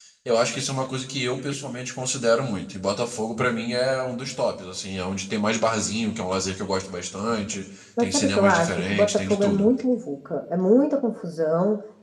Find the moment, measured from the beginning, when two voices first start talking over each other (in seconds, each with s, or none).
8.0 s